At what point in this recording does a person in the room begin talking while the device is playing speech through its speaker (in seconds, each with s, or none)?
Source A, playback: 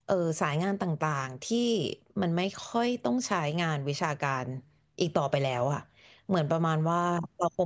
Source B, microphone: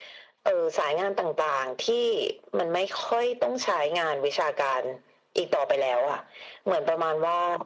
none